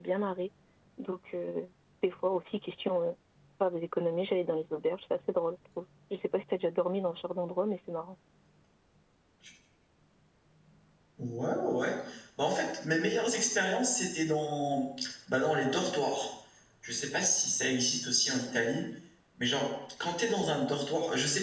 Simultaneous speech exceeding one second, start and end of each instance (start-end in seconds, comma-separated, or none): none